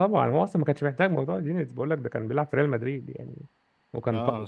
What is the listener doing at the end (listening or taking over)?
listening